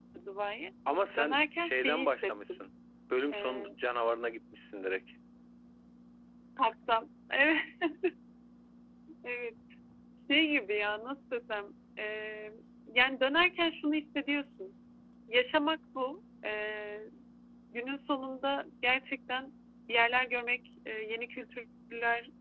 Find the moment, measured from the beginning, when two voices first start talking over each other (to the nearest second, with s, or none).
1 s